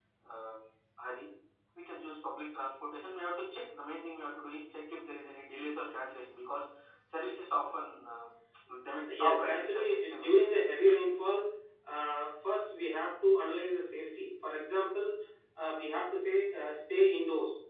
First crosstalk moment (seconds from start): 9.1 s

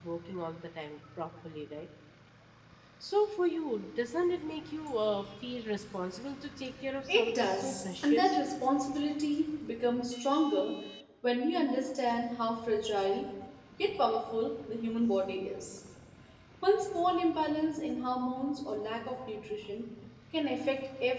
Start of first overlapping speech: 7.1 s

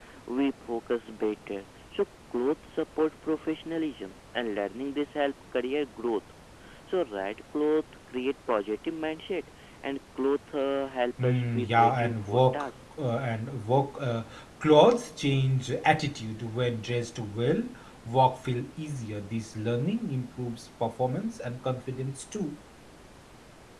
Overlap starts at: 11.2 s

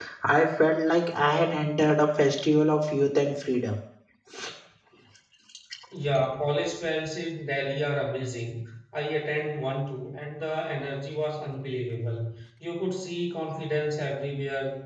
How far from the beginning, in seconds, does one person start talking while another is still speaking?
none

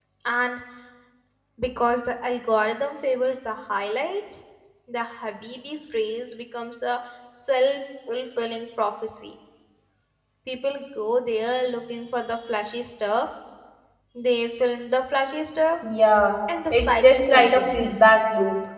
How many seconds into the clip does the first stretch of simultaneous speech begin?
16.7 s

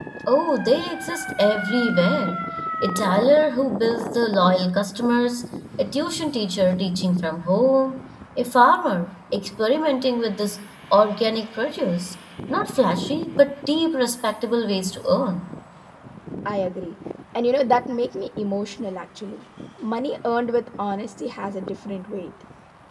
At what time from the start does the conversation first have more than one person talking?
none

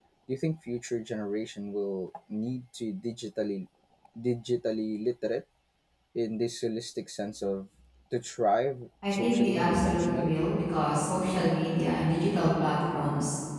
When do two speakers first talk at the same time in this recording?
9.0 s

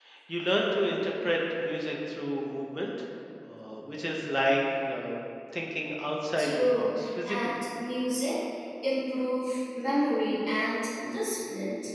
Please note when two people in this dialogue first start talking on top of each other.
6.3 s

